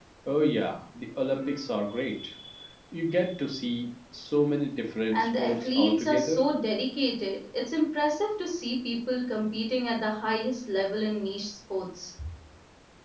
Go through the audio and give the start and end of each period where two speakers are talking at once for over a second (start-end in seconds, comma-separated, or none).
5.1-6.4